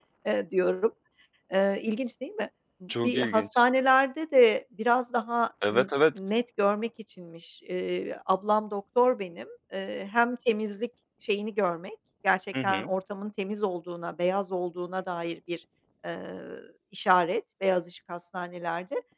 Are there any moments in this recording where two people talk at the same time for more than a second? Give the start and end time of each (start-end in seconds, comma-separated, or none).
none